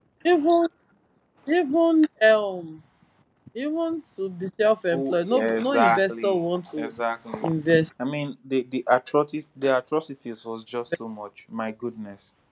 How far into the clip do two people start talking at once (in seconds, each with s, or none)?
4.9 s